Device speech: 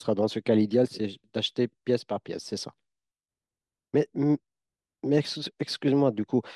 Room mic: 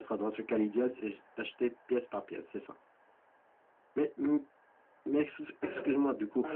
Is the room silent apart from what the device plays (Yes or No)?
No